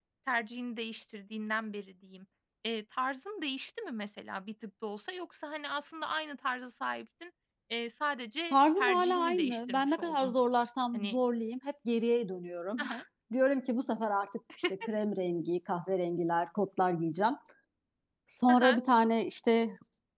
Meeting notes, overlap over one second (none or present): present